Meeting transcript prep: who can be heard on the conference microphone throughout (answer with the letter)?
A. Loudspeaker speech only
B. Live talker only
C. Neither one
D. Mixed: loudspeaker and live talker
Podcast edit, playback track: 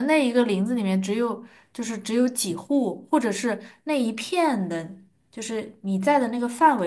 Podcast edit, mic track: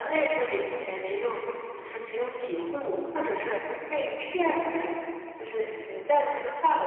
A